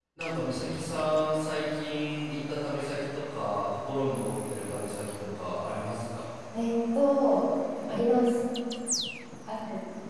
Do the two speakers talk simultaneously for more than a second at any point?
No

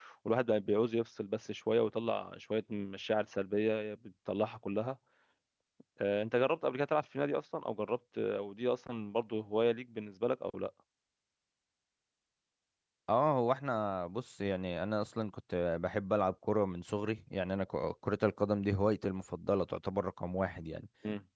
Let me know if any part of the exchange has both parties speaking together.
No

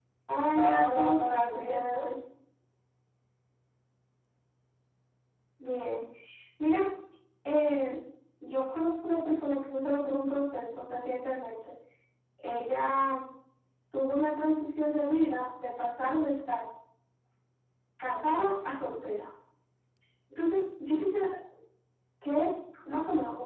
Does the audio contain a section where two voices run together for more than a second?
Yes, from 0.6 s

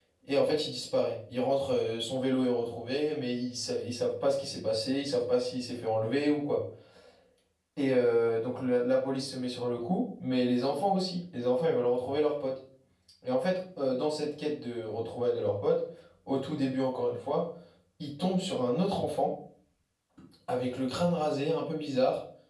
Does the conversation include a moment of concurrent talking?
No

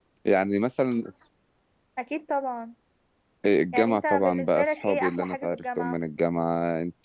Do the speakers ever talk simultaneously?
Yes, from 3.7 s

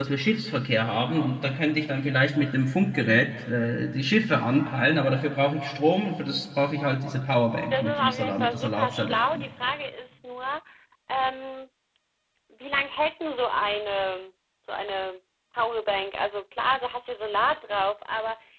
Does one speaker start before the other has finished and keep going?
Yes, from 7.7 s

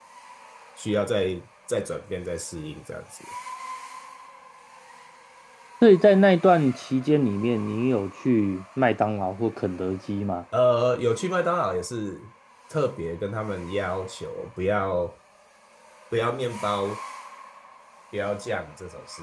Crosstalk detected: No

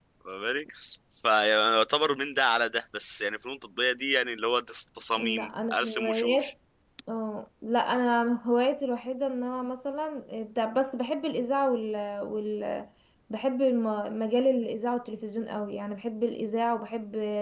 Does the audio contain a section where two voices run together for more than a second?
Yes, from 5.2 s

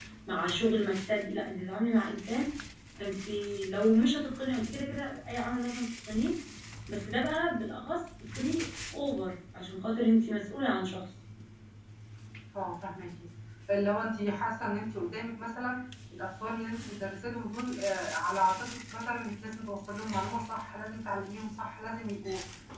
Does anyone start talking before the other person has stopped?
No

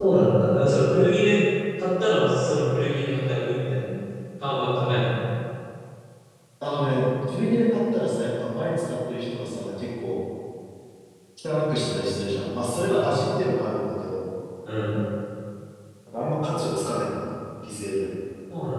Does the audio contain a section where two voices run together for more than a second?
No

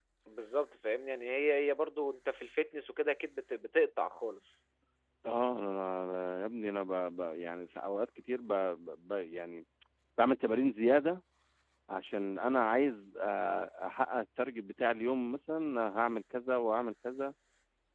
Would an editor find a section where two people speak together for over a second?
No

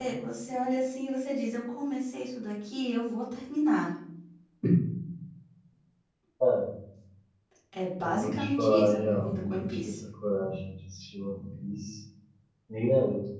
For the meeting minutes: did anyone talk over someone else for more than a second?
Yes, from 8.0 s

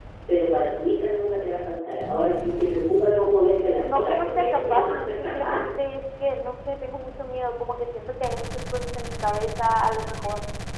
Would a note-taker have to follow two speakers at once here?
Yes, from 3.8 s

